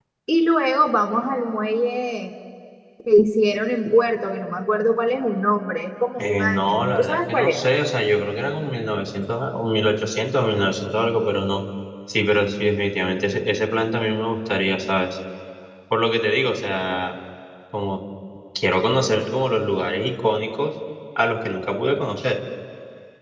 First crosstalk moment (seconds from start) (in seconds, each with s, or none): 6.2 s